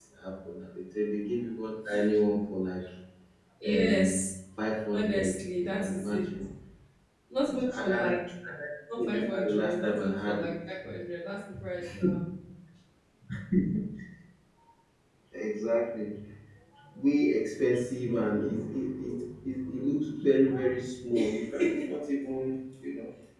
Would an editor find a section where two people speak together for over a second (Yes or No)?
Yes